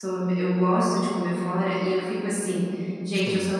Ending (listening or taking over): listening